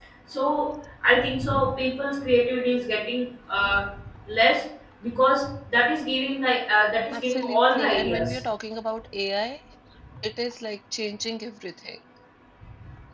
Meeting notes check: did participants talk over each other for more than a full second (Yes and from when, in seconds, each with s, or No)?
Yes, from 7.1 s